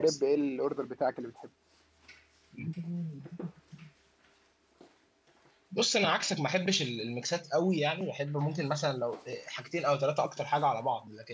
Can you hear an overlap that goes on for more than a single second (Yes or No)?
No